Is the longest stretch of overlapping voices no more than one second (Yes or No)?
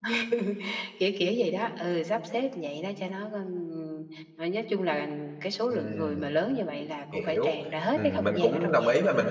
No